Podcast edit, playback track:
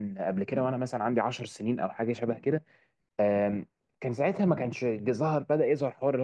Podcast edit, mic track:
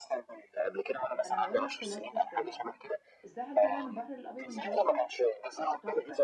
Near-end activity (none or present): present